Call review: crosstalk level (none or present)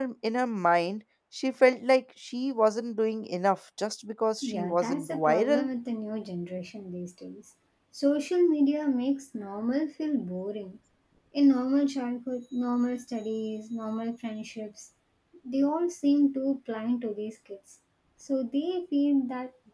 present